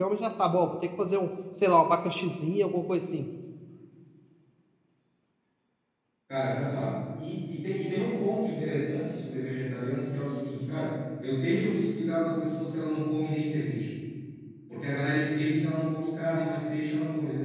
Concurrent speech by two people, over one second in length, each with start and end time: none

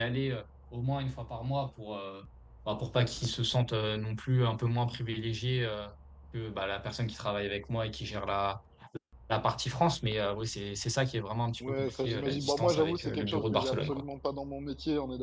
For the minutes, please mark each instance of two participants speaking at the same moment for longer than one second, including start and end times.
11.7-14.0

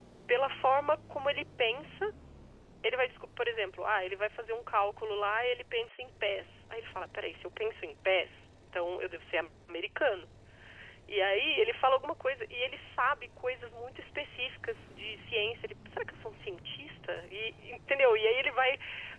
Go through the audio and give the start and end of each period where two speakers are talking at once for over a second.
none

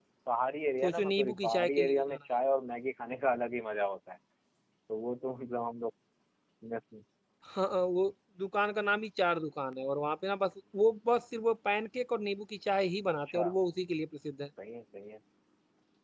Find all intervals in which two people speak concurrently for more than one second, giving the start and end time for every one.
0.8-2.2

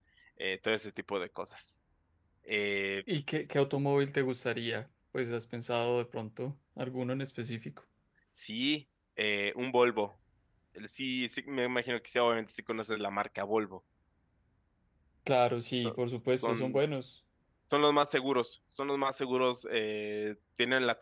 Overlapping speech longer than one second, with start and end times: none

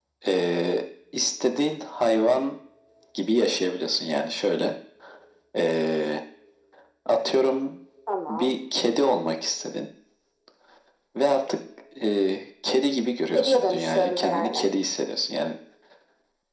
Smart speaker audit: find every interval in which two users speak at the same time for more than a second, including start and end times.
13.3-14.7

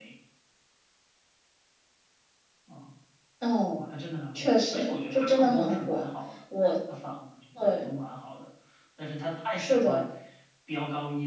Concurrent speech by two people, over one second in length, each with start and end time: 4.3-6.0

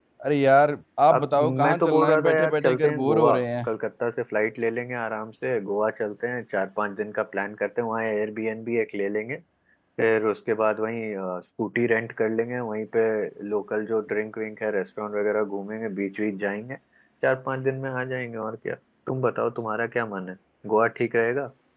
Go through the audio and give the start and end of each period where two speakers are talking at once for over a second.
1.1-3.7

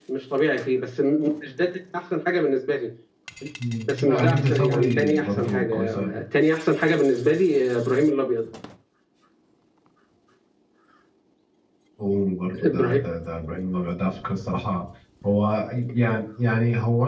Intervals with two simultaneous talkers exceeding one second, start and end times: 3.9-6.2

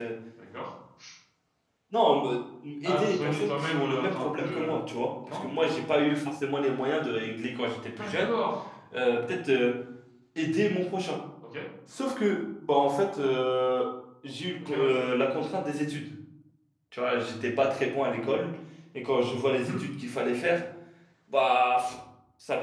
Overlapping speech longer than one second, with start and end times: 2.8-4.8

